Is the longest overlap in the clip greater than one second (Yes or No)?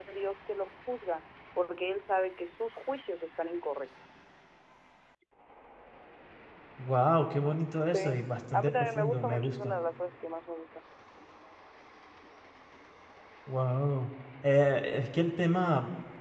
Yes